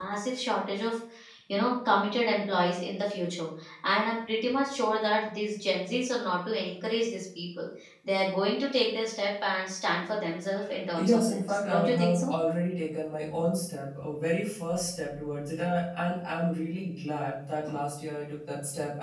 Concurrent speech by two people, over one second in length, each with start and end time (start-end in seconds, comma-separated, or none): 10.9-12.3